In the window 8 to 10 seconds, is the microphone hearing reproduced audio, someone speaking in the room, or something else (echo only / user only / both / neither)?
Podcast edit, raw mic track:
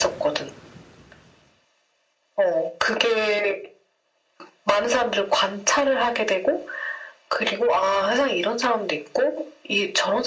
echo only